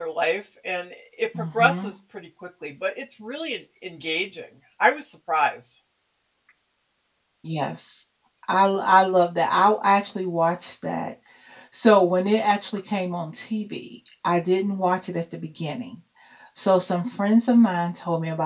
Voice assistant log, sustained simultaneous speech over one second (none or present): none